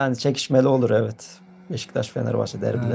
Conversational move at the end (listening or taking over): taking over